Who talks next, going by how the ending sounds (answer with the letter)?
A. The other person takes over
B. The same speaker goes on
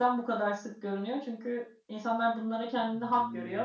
B